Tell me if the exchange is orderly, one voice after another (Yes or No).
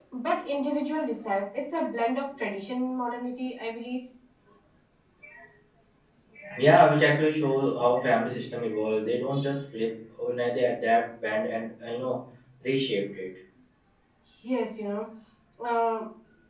Yes